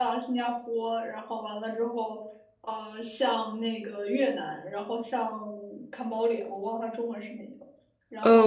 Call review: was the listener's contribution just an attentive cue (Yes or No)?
No